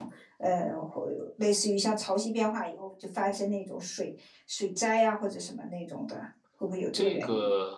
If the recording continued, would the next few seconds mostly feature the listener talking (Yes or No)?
Yes